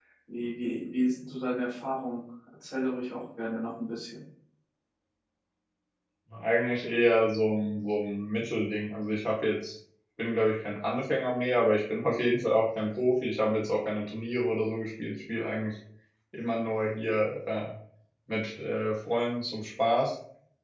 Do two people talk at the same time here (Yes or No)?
No